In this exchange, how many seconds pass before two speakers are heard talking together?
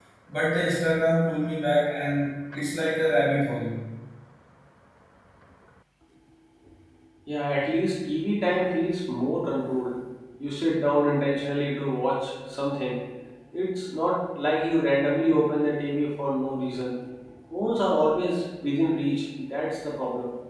none

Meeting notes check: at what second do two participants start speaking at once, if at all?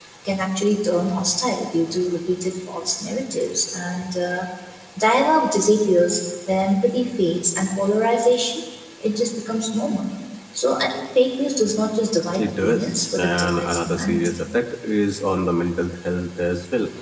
12 s

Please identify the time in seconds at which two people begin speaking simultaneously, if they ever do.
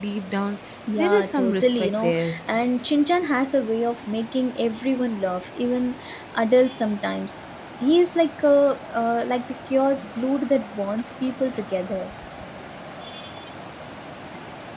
1 s

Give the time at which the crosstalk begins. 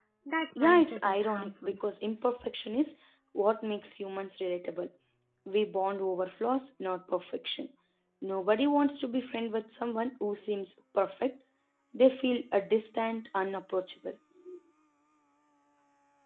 1 s

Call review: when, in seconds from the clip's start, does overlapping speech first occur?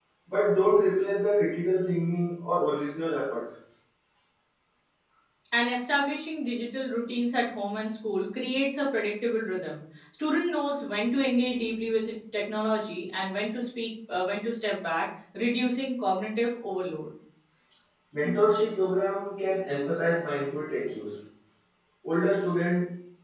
none

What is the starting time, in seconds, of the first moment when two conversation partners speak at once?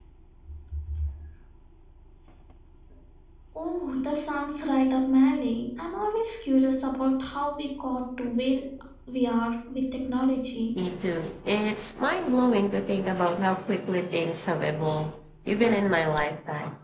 none

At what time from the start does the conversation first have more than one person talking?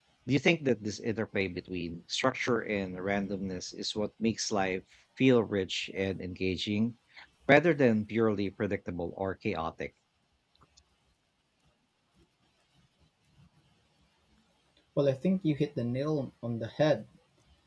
none

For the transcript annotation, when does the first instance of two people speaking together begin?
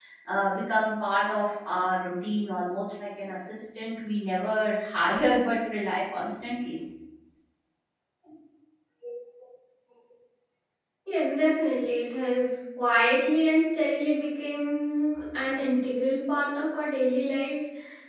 none

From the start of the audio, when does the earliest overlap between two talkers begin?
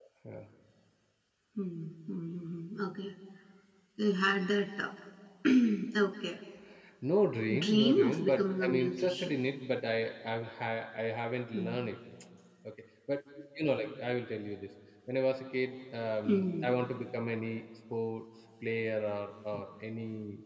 8 s

